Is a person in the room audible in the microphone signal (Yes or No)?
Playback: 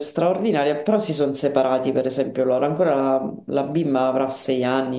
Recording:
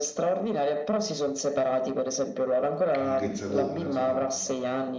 Yes